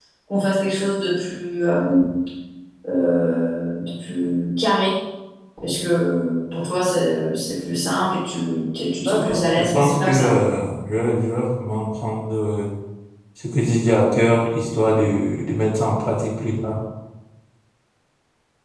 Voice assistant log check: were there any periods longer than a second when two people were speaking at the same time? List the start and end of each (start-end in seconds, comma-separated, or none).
9.0-10.3